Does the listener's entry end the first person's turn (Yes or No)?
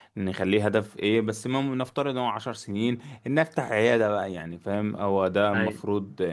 No